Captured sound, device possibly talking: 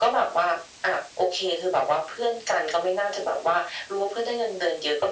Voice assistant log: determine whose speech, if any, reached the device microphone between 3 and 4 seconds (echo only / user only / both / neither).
echo only